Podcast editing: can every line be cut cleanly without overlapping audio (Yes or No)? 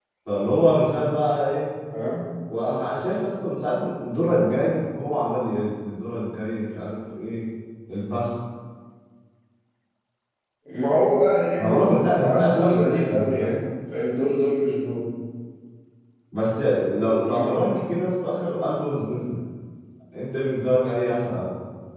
No